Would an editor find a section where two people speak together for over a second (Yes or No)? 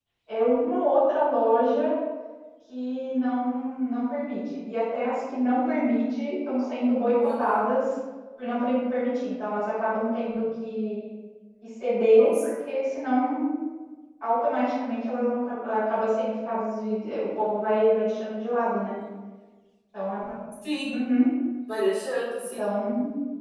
No